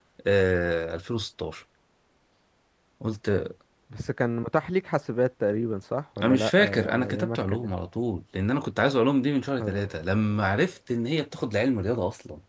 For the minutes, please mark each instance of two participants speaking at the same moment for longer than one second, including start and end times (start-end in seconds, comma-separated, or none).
6.2-7.7